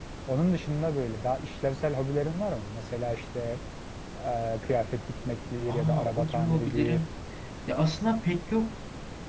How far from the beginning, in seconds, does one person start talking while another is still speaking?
6 s

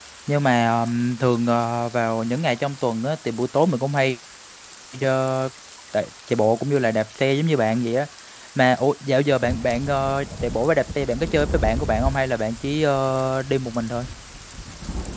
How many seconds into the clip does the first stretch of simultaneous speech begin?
none

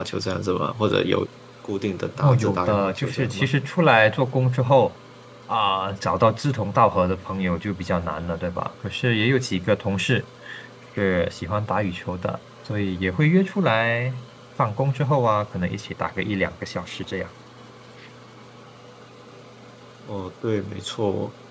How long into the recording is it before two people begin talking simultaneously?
2 s

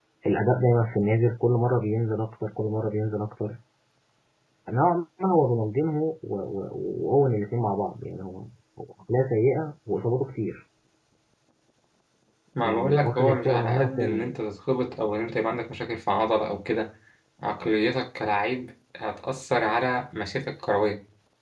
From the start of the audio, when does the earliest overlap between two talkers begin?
13 s

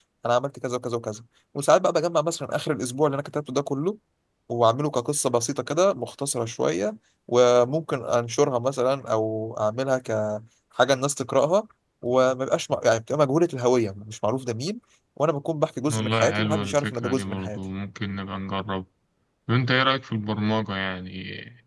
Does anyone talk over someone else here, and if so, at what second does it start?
16 s

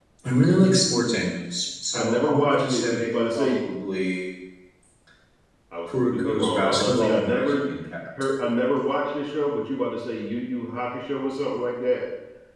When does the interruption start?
2 s

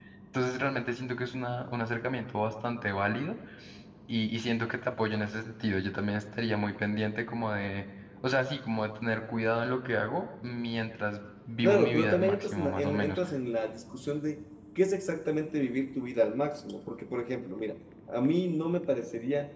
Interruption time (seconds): 12 s

